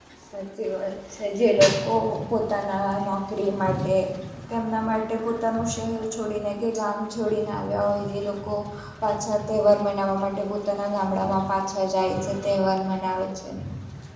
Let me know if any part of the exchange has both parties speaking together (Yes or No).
No